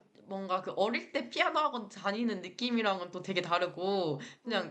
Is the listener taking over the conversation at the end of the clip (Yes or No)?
No